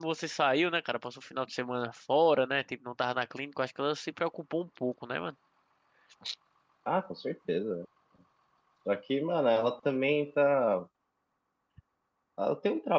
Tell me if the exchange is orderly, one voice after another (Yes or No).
Yes